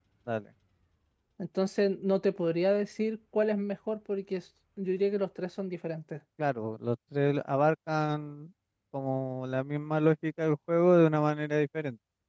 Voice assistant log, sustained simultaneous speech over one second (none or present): none